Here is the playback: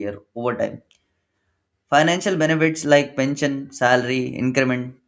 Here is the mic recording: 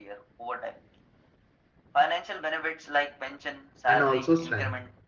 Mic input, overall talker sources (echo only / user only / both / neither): both